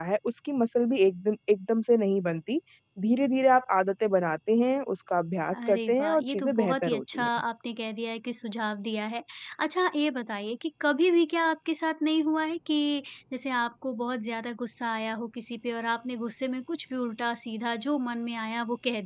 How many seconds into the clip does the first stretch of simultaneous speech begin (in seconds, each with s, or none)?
5.5 s